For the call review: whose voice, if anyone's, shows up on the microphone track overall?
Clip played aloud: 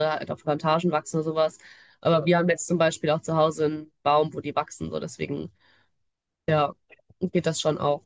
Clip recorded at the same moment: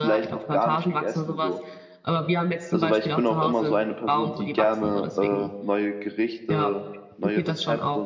both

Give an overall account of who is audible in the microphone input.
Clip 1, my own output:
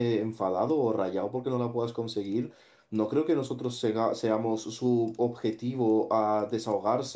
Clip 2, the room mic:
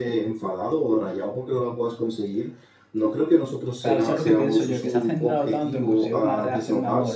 both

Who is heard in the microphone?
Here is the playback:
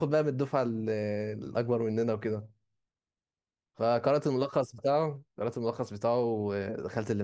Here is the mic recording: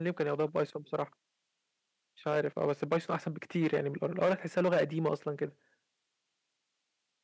user only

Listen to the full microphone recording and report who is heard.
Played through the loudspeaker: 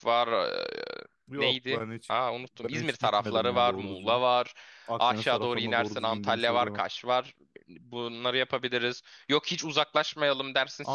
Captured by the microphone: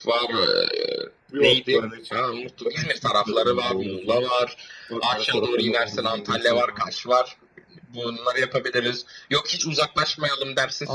echo only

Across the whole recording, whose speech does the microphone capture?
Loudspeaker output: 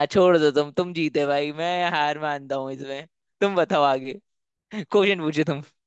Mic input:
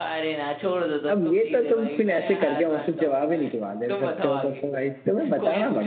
both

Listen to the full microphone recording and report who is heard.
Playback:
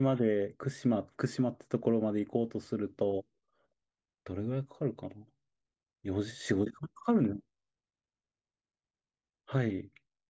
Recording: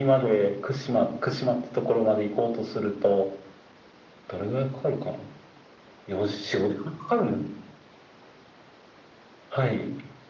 echo only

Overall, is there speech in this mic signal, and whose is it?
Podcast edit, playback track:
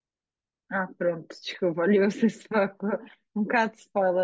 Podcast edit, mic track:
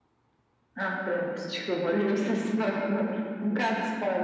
echo only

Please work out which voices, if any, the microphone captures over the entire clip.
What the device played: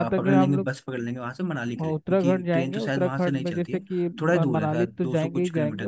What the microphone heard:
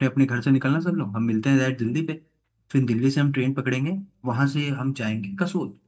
user only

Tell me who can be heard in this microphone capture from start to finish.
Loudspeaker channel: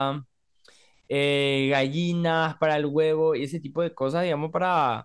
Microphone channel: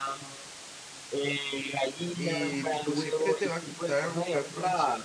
both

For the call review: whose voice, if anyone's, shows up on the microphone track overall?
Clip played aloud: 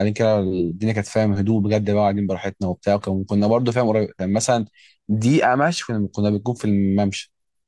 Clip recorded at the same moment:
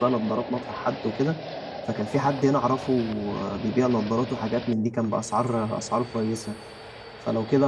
user only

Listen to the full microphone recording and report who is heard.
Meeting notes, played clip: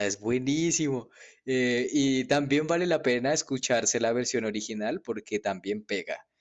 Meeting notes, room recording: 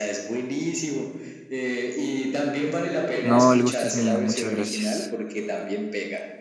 both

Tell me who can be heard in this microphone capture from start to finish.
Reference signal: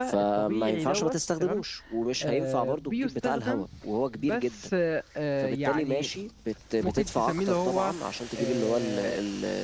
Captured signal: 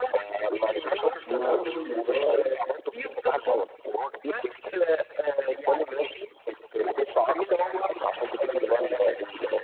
both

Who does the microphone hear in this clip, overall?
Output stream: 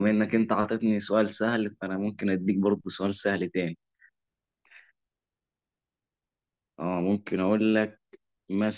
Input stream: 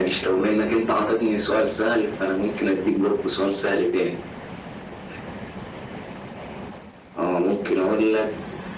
echo only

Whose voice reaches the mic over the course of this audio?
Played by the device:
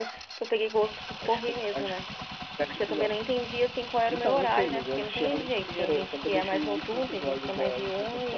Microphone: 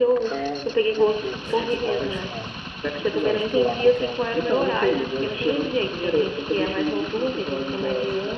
both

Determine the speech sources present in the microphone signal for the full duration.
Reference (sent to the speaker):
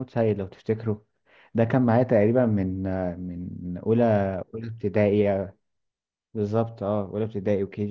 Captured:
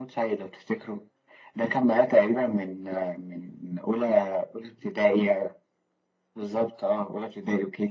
echo only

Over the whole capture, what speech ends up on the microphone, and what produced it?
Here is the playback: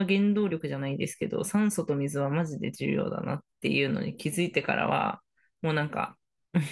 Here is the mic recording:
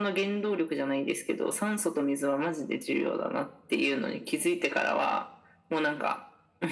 echo only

